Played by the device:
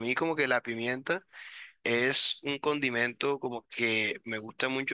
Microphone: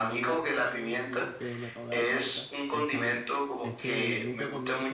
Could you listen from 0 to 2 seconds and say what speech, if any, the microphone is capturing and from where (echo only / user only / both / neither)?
both